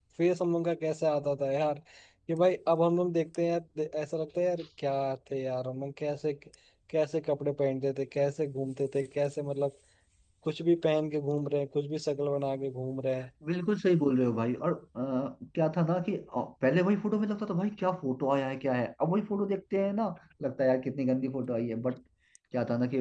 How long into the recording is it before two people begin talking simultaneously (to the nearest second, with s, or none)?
none